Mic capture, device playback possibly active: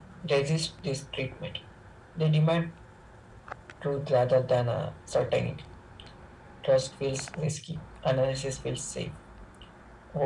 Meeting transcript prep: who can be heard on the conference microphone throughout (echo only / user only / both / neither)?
echo only